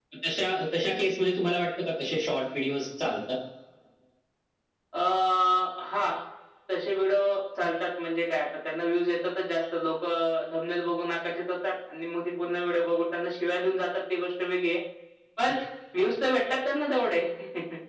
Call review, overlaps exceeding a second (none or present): none